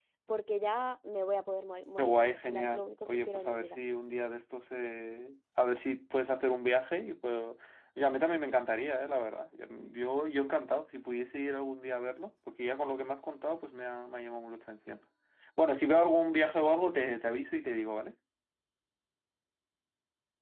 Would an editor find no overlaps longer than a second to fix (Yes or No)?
No